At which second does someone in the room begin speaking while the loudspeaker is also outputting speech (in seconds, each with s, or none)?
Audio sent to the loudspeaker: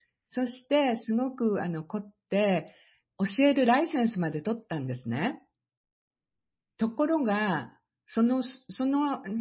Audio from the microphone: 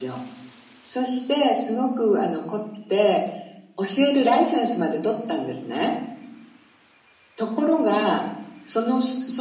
none